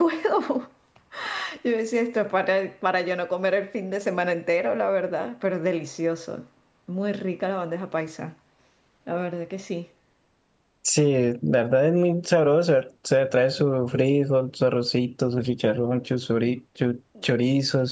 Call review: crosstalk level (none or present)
none